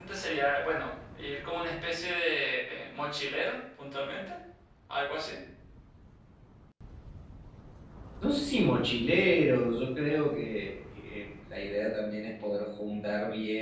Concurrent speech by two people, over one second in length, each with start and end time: none

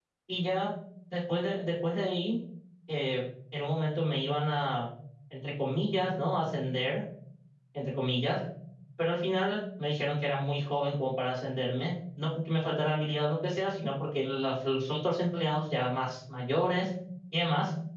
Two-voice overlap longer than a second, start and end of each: none

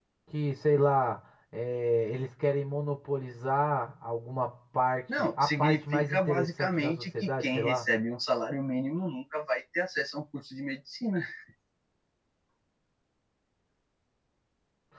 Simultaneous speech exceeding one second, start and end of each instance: 5.2-7.9

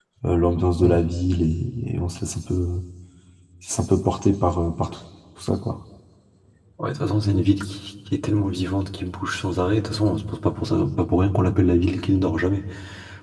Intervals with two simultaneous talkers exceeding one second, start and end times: none

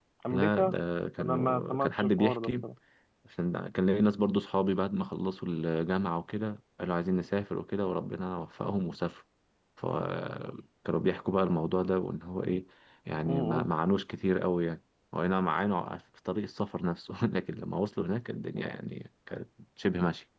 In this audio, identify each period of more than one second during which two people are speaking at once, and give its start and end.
1.2-2.6

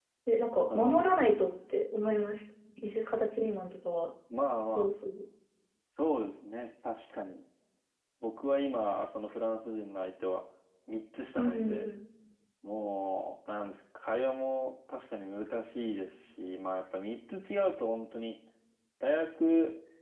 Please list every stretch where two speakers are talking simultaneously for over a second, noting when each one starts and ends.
none

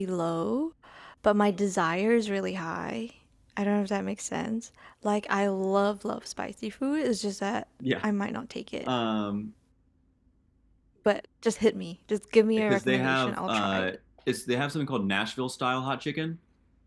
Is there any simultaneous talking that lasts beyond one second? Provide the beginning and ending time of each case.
12.6-14.0

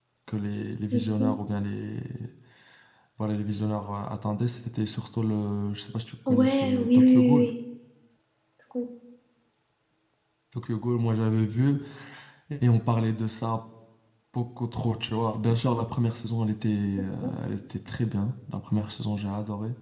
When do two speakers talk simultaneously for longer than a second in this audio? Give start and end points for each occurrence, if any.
6.3-7.5

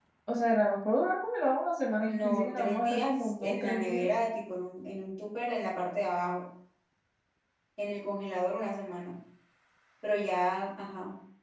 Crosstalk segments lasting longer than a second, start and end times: 2.1-4.1

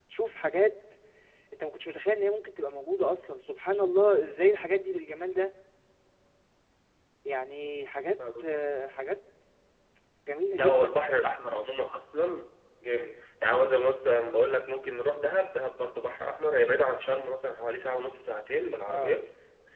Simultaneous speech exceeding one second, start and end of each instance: none

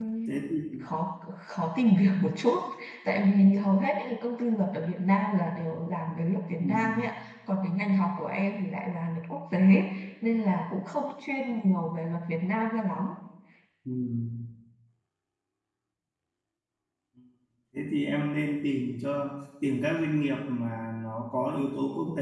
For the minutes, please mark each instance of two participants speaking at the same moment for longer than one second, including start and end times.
none

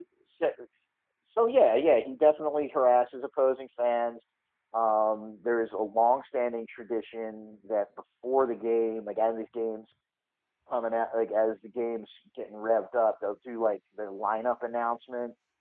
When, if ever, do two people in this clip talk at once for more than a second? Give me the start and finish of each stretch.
none

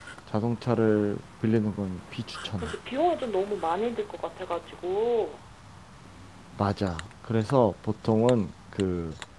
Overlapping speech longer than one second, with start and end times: none

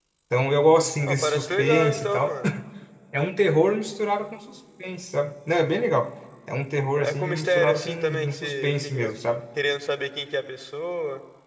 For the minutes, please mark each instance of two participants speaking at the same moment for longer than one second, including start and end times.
1.0-2.4, 7.0-9.1

